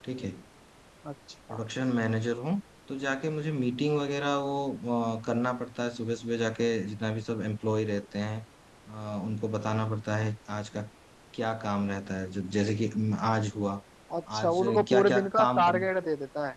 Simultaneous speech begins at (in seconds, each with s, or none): 14.4 s